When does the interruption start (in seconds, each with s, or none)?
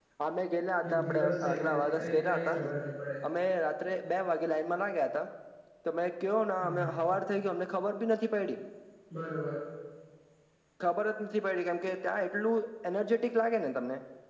0.9 s